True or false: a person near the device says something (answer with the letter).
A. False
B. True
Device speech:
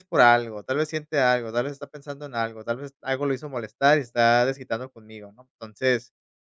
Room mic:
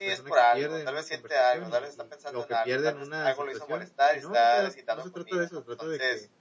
B